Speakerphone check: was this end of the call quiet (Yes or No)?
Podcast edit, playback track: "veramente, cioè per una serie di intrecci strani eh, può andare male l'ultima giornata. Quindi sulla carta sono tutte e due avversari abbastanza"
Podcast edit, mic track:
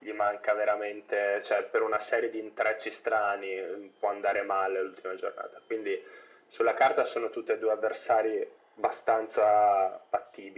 Yes